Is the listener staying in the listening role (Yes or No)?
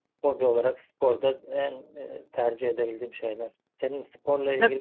No